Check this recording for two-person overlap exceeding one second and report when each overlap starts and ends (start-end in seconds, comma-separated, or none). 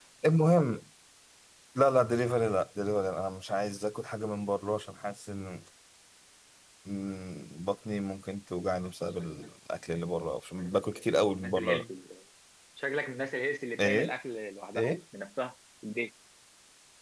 10.6-11.8